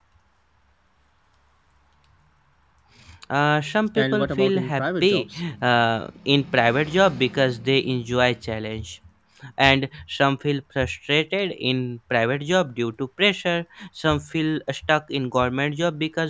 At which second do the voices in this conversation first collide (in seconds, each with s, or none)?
4.0 s